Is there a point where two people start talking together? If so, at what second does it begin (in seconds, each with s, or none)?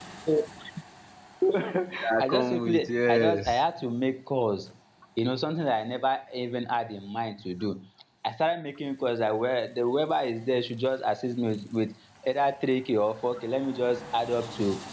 2.2 s